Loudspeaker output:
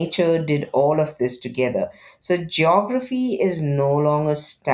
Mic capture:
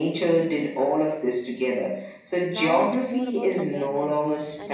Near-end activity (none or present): present